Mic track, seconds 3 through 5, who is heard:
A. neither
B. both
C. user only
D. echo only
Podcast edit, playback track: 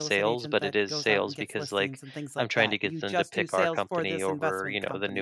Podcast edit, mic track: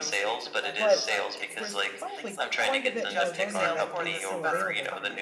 B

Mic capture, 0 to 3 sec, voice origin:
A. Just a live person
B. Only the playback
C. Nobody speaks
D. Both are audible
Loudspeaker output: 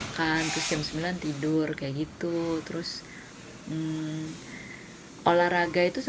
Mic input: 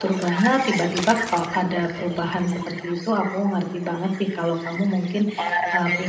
D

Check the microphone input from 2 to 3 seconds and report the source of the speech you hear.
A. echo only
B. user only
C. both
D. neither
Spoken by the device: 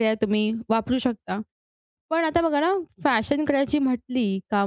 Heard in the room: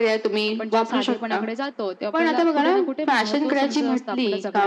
C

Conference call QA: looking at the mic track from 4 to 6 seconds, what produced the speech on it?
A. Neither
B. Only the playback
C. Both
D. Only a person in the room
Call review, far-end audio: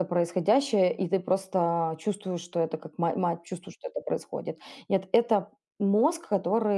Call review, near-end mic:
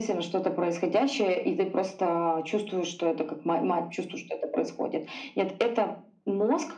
B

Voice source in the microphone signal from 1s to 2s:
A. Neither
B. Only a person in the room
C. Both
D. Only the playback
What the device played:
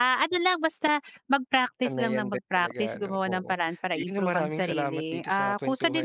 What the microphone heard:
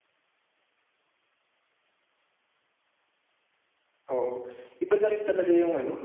A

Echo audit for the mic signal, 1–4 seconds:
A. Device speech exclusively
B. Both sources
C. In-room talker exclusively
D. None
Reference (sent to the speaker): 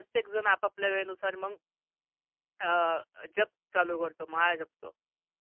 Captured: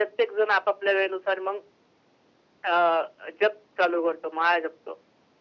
A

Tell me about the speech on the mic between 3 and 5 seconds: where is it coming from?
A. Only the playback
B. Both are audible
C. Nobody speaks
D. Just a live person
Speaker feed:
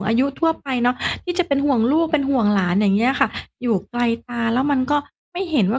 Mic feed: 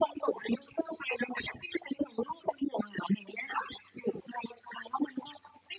A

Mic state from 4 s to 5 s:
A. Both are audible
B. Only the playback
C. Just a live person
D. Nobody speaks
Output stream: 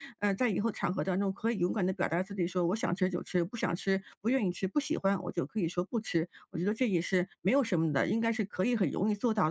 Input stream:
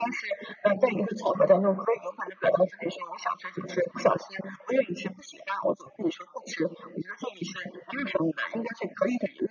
B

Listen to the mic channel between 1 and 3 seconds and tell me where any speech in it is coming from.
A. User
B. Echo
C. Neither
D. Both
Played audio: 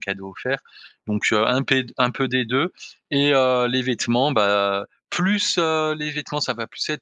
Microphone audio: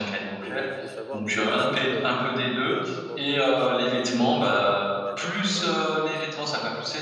D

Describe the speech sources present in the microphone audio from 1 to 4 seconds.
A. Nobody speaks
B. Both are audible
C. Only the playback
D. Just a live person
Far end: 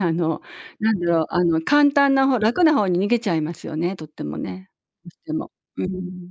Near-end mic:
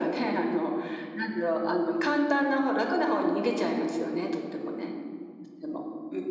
C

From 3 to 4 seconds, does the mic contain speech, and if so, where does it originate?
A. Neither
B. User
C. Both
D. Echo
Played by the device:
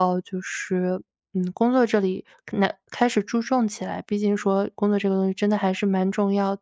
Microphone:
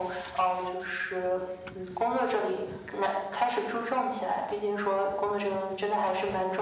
D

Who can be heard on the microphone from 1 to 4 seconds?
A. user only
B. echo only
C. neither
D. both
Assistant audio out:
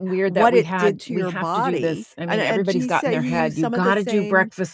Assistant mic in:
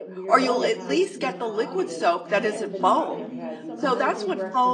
D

